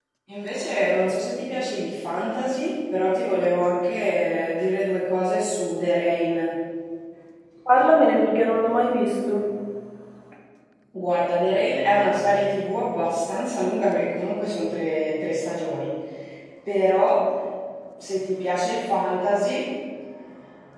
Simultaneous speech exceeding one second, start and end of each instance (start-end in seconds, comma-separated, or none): none